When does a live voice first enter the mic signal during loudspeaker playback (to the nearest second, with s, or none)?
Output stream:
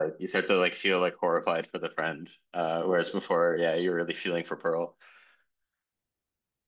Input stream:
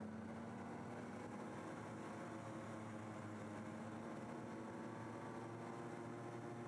none